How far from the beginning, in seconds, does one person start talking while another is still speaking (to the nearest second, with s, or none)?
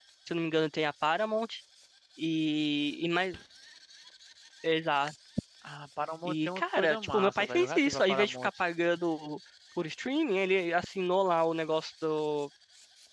6 s